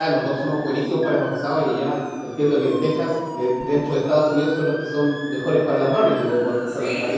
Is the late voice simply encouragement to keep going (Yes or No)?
No